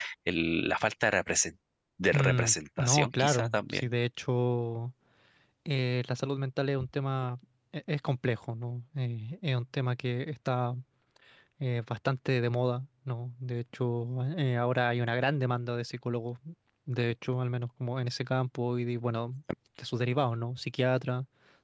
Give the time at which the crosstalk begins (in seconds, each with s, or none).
2.1 s